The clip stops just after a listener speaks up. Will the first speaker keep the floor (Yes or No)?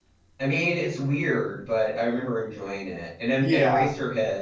Yes